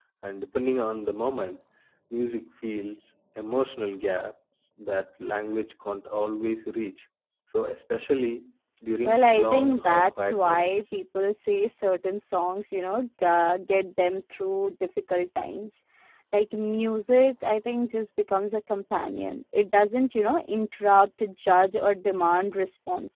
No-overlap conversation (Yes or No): No